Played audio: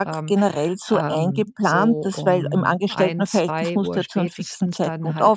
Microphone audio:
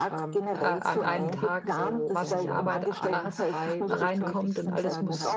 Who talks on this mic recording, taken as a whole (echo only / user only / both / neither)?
both